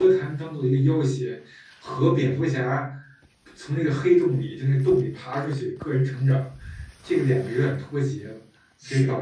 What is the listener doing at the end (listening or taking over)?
listening